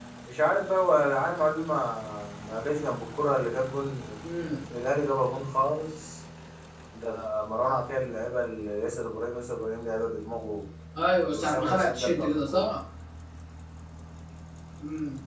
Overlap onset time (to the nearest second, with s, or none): 11 s